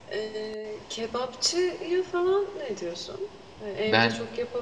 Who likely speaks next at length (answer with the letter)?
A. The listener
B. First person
B